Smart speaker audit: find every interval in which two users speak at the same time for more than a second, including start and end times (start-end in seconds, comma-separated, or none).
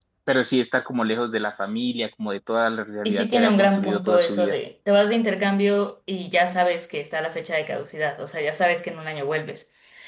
3.0-4.6